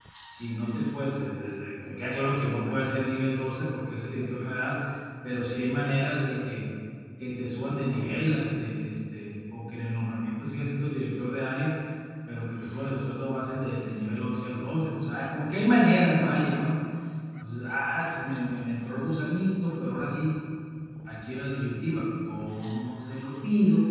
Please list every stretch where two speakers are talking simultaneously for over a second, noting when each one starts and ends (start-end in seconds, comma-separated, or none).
none